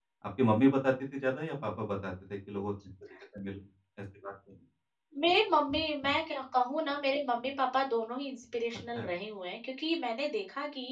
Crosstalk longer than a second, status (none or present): none